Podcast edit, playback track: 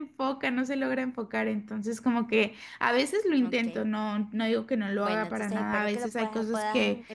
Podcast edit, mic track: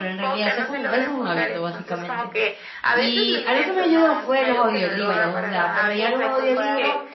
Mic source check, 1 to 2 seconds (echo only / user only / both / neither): both